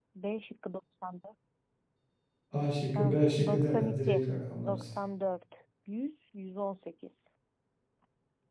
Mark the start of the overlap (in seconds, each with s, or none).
3.0 s